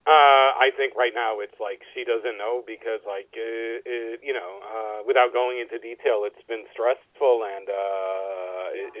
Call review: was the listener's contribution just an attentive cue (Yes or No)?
Yes